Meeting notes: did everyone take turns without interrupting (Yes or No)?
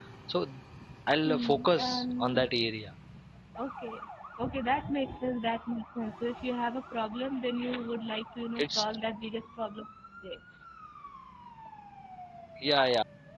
No